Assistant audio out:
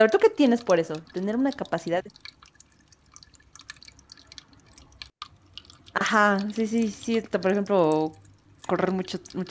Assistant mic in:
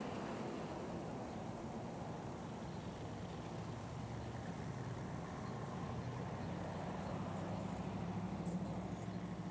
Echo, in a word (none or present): none